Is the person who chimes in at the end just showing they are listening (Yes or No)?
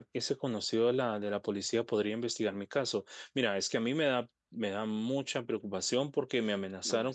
Yes